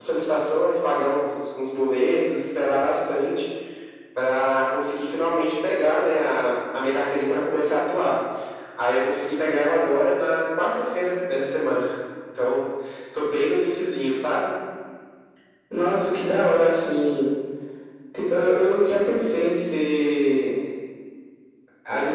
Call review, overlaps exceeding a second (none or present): none